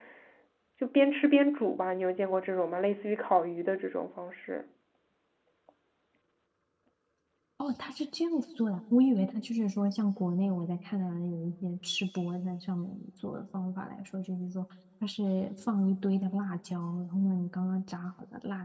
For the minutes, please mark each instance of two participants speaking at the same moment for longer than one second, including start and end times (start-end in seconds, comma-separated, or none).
none